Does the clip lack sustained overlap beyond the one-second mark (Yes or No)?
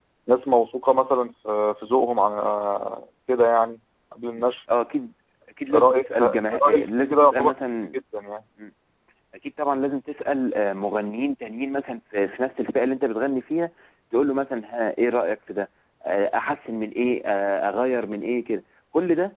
No